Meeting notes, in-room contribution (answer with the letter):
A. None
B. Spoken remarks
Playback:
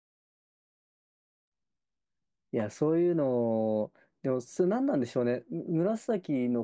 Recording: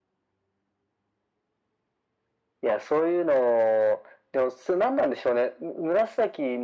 A